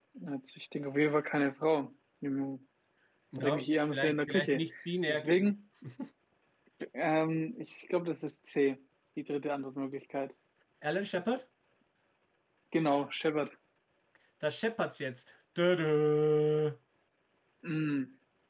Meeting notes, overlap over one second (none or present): present